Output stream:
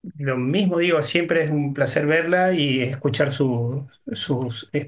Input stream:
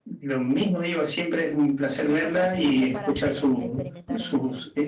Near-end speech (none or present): present